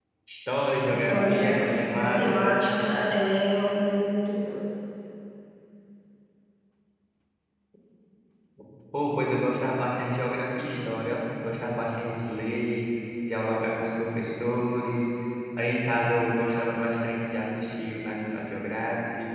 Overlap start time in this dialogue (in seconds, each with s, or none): 0.9 s